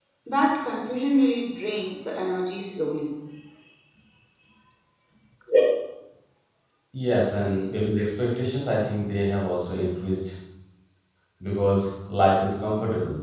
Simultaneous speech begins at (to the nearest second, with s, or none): none